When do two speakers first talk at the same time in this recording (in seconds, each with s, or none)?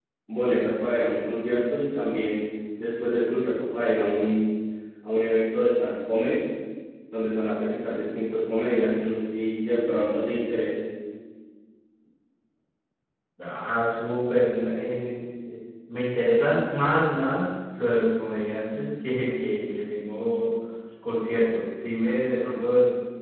none